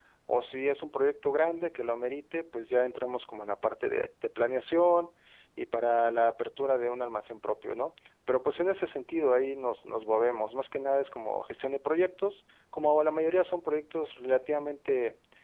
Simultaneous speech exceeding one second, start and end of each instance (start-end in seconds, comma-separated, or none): none